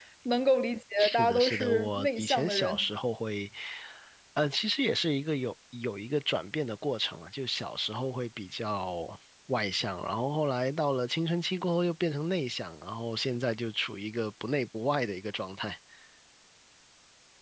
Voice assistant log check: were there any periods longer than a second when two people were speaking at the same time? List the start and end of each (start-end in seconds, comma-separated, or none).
1.0-2.8